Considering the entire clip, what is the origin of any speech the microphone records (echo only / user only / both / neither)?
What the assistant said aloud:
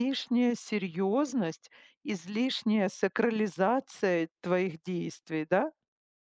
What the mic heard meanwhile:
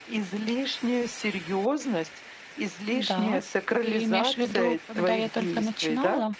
both